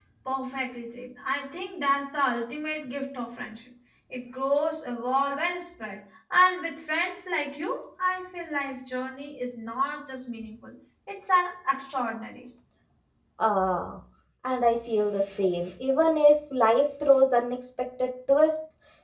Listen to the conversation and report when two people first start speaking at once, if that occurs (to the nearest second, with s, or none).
none